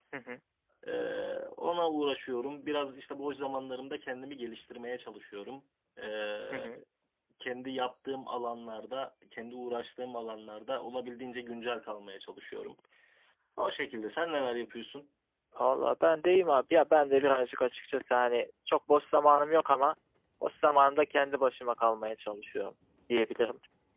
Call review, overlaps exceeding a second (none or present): none